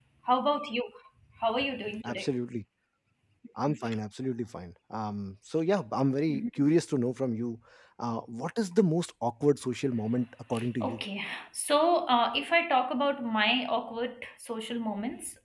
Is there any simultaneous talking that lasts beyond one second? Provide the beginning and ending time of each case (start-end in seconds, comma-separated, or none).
none